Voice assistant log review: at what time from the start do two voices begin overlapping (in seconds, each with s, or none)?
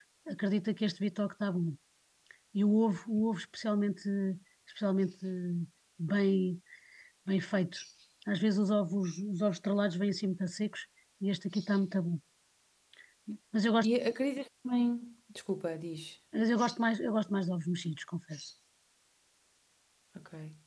none